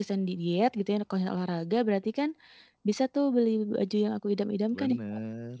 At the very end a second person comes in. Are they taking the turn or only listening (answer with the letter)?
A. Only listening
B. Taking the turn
B